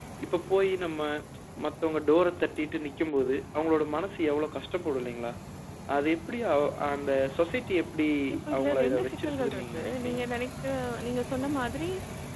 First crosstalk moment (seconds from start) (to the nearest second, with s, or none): 9 s